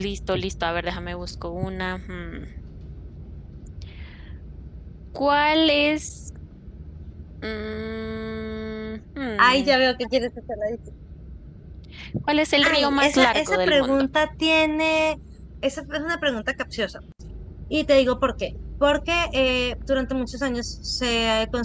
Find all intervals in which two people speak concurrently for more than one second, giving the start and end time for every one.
12.6-14.1

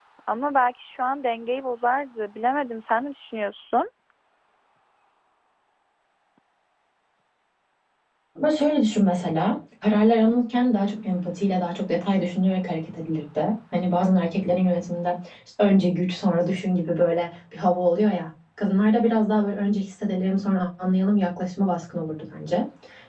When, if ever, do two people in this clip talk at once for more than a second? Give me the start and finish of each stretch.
none

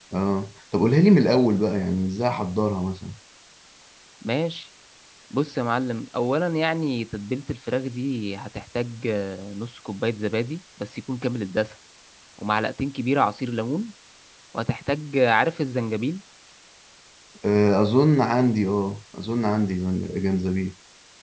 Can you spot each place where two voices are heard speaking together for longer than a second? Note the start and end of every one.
none

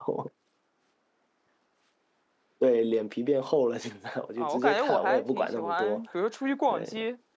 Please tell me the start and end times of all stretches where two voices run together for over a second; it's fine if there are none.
4.4-6.0

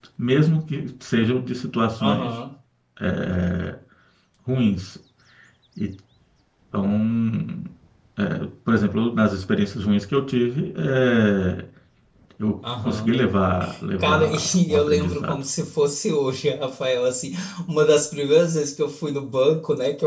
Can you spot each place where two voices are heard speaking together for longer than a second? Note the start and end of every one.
14.0-15.4

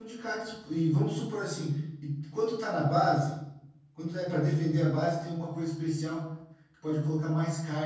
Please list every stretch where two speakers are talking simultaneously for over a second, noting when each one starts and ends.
none

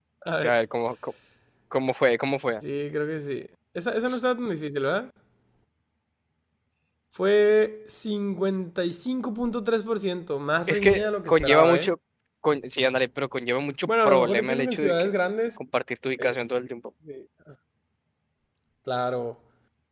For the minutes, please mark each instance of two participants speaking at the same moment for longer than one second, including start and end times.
10.7-11.9, 13.9-15.1

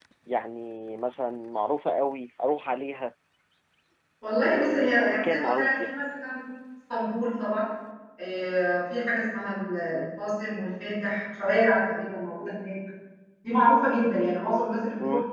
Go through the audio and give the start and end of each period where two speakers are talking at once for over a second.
4.4-5.8

